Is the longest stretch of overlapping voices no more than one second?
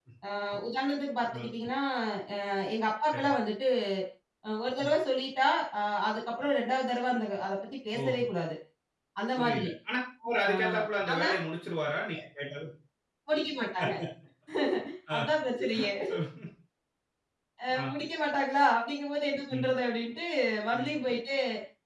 Yes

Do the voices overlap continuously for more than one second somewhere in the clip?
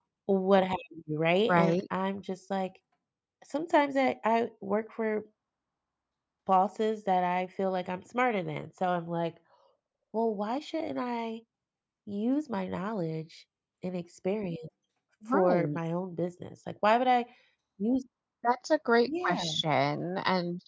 No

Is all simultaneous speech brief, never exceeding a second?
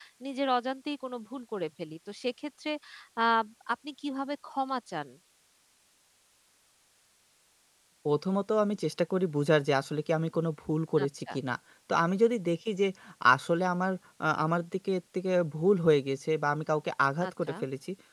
Yes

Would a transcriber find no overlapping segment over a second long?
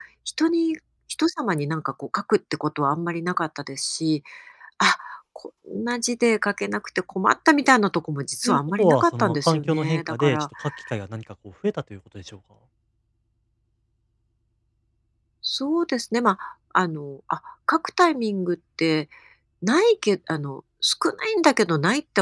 No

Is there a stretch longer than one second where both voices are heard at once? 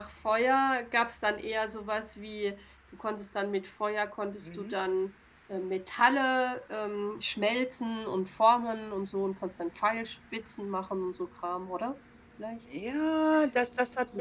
No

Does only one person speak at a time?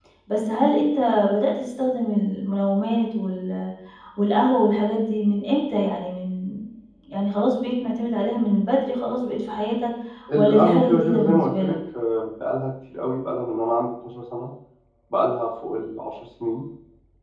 No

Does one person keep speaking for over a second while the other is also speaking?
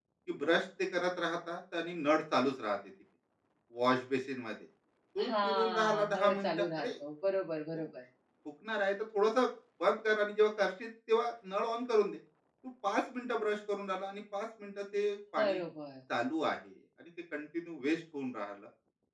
Yes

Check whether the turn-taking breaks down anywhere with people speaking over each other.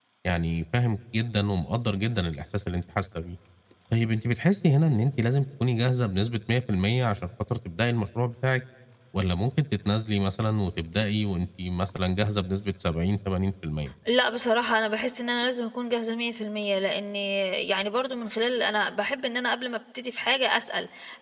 No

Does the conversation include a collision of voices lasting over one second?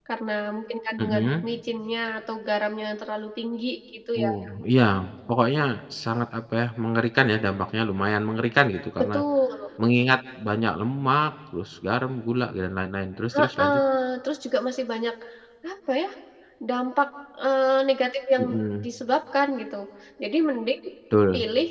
No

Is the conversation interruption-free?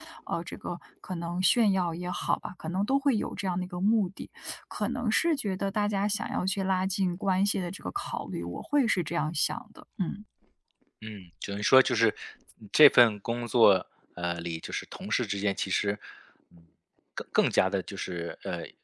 Yes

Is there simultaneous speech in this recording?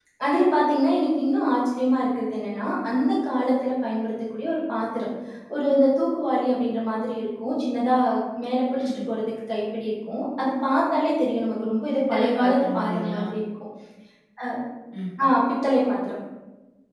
Yes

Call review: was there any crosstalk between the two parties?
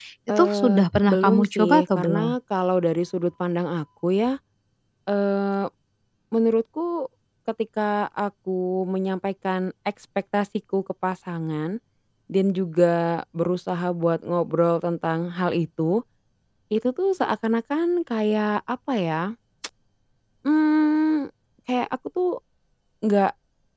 Yes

